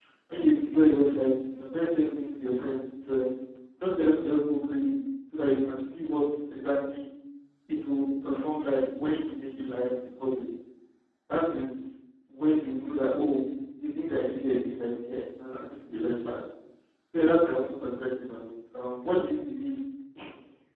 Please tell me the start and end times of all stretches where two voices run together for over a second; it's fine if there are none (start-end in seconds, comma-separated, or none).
none